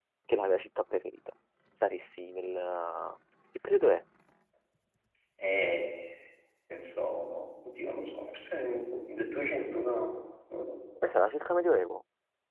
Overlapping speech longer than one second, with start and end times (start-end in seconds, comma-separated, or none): none